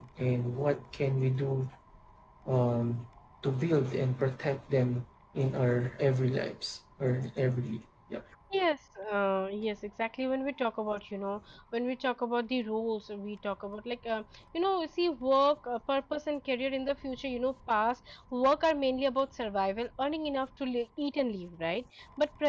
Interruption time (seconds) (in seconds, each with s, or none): none